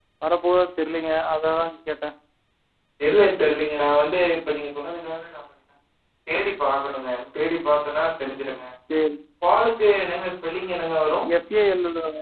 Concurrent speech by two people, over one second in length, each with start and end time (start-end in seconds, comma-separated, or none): none